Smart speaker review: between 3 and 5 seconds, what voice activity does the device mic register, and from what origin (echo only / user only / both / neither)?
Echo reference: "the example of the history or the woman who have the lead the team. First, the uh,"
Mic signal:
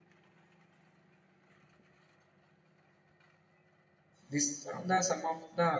user only